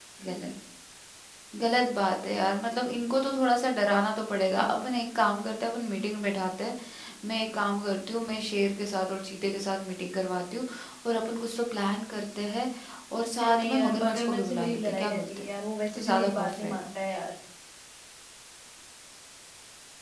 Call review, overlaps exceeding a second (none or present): present